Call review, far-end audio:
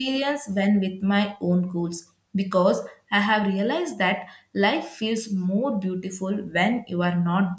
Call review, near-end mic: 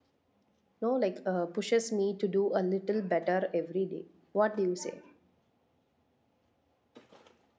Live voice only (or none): no, like uh, pushes me to do a little better every day. What do you say?